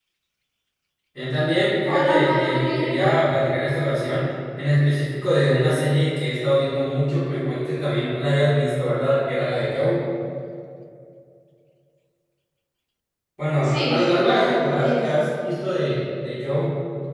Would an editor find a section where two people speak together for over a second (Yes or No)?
Yes